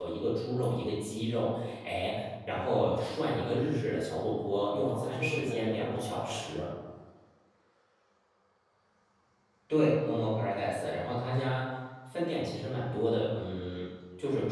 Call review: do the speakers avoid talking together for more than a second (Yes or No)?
No